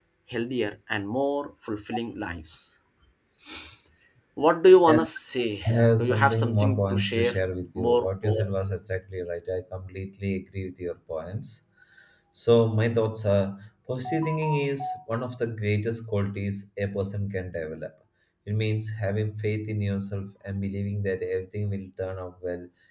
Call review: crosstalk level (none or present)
present